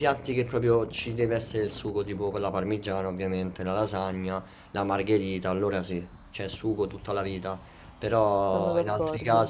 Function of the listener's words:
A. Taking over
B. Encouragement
B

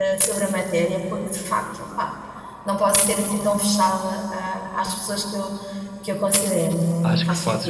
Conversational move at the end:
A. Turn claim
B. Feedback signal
A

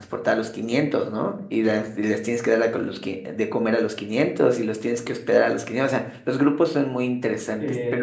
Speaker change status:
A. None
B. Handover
B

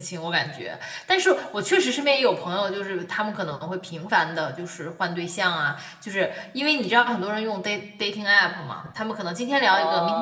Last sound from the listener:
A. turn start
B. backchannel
A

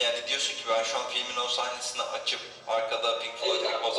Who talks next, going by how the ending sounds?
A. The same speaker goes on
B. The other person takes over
B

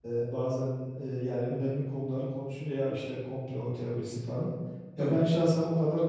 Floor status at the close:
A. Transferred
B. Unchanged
B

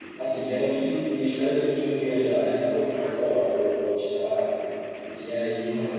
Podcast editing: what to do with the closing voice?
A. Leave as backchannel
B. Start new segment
A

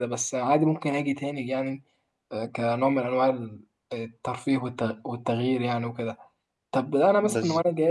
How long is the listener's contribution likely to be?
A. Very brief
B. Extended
A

